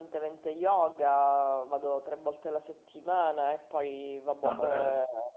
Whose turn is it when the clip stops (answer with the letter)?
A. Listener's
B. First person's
B